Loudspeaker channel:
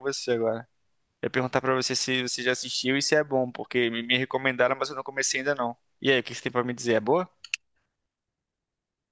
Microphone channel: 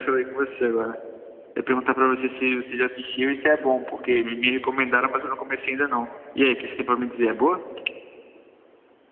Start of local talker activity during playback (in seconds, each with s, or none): none